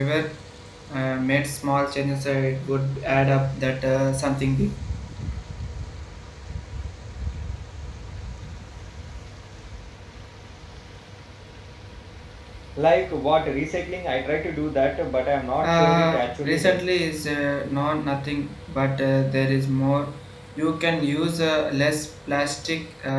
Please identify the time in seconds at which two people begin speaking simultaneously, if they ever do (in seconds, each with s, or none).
15.6 s